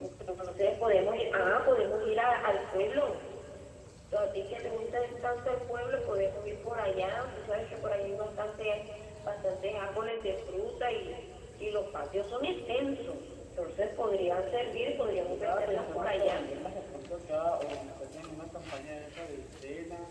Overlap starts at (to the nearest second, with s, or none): 15 s